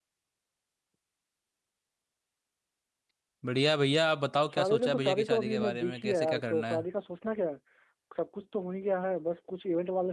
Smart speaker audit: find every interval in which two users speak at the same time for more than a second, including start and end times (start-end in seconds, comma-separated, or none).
4.5-6.8